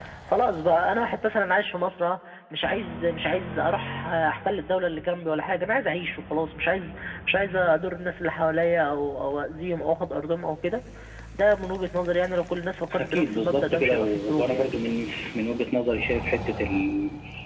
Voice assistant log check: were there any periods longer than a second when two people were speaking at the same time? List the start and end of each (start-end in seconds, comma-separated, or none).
13.0-14.7